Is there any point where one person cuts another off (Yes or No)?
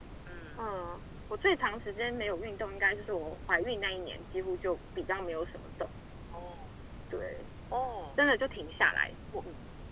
No